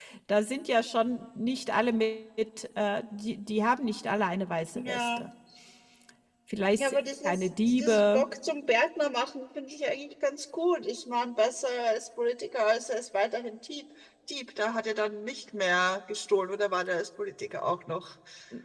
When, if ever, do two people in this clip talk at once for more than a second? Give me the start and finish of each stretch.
6.8-8.2

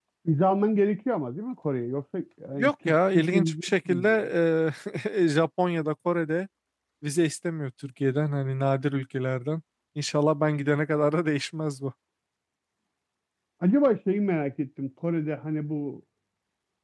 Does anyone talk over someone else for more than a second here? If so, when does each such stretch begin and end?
2.6-4.1

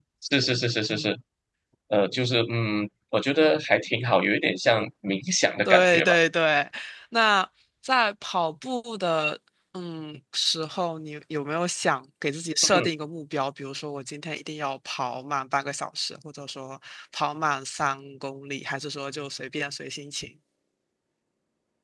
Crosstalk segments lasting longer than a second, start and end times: none

